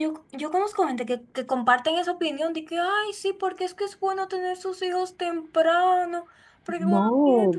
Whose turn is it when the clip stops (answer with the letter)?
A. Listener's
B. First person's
B